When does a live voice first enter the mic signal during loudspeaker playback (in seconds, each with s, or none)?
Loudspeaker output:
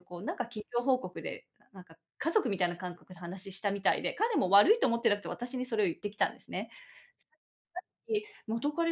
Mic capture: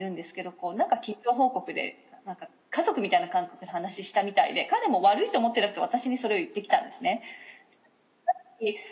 none